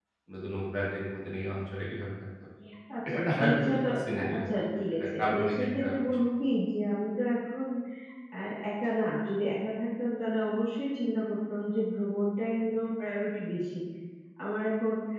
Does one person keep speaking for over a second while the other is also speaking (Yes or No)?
Yes